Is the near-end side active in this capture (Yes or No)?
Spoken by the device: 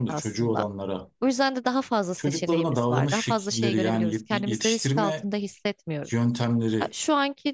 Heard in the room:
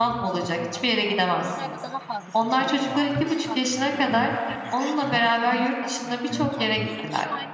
Yes